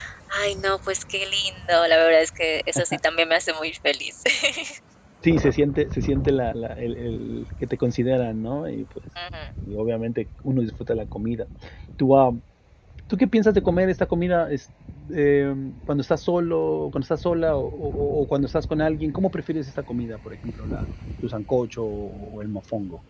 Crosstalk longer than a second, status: none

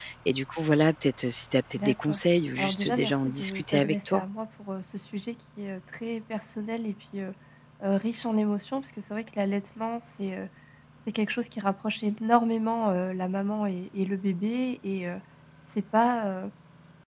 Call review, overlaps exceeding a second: present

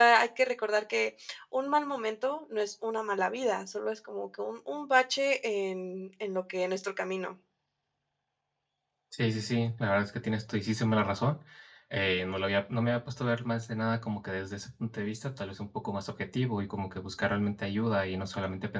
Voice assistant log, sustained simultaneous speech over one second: none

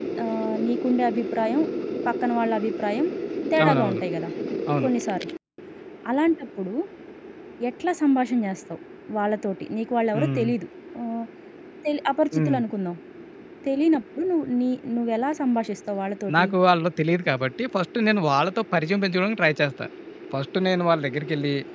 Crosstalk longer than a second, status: none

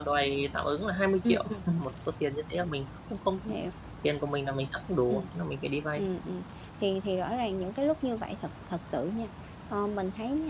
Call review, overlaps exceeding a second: none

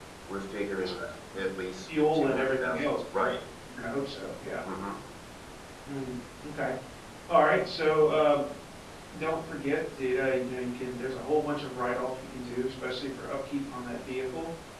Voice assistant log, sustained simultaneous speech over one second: present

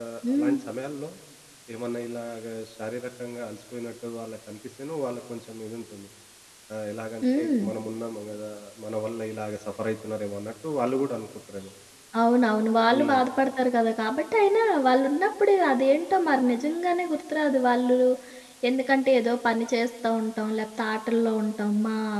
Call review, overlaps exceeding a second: none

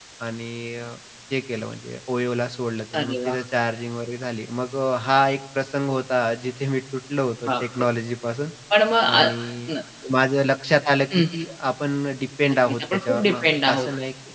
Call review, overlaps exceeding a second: present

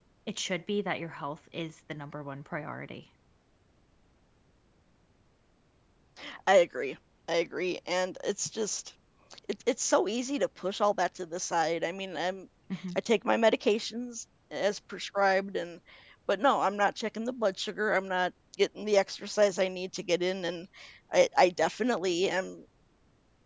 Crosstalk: none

